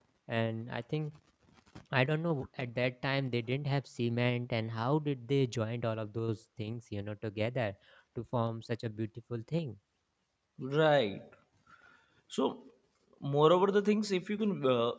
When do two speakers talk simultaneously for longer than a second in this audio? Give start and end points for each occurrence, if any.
none

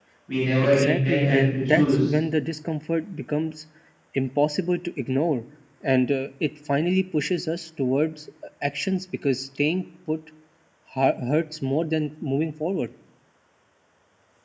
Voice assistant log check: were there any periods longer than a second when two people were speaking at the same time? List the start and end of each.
0.6-2.0

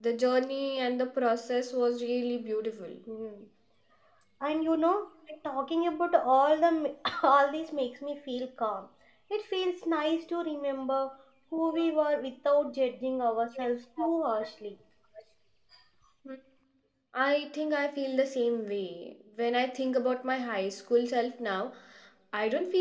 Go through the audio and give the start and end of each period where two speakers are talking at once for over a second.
none

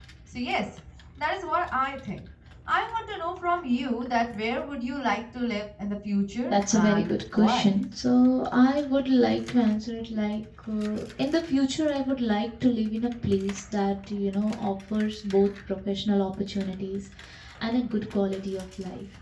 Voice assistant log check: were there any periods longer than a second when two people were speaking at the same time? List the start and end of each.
6.5-7.7

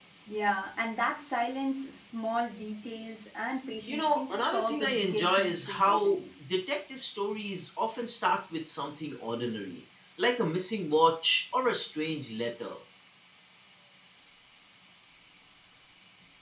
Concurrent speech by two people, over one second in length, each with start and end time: 3.9-6.2

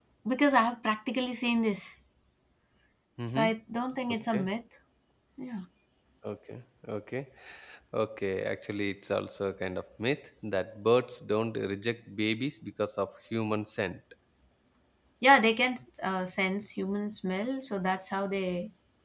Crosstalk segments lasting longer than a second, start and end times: none

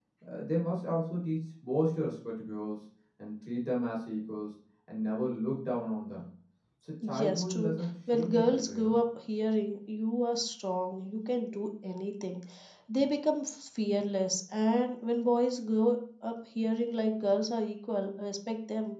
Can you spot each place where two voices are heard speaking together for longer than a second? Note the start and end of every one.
7.2-8.9

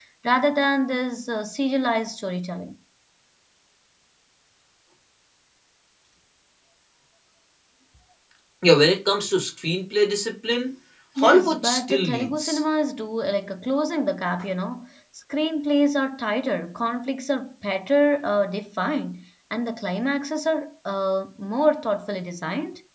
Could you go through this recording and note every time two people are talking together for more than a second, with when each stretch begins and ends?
11.2-12.6

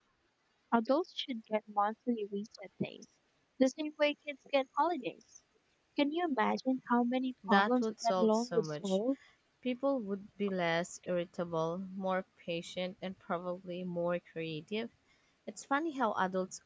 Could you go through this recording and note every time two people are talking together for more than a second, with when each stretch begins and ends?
7.5-9.0

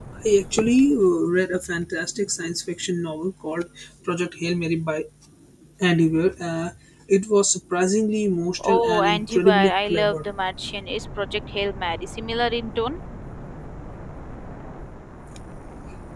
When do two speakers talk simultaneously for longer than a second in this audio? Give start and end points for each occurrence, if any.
8.6-10.2

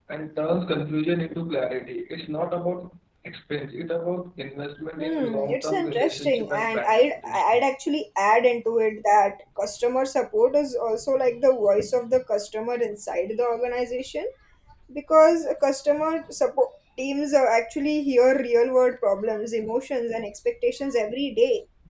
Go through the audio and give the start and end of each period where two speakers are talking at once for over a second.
5.0-7.6

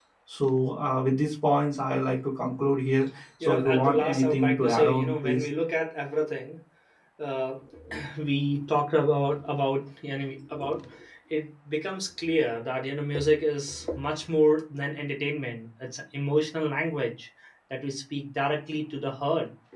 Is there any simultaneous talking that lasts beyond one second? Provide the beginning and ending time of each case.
3.4-5.5

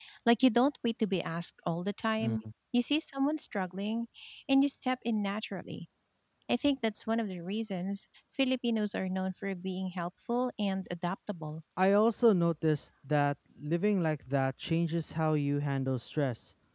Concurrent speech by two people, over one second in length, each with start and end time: none

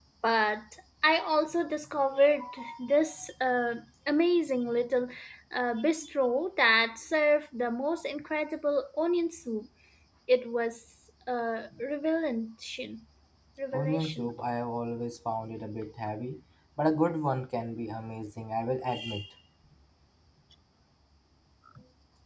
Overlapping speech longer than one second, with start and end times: none

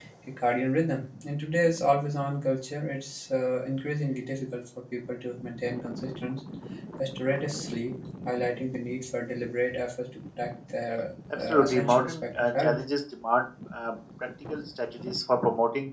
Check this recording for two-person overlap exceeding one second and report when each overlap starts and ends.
11.3-12.8

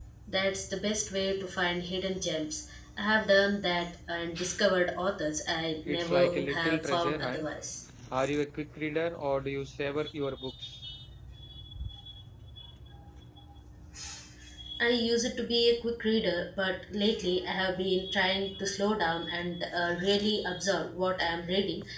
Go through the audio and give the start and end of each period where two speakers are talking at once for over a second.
5.9-7.5

